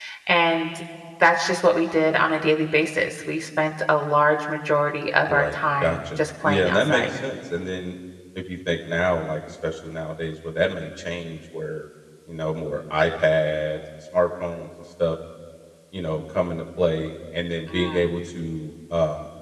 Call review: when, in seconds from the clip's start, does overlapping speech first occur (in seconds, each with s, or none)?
5.3 s